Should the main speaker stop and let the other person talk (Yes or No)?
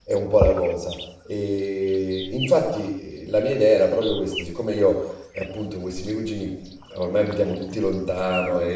No